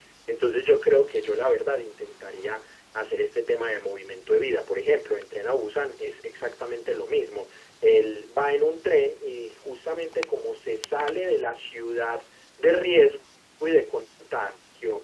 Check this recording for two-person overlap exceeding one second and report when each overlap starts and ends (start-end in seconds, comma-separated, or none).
none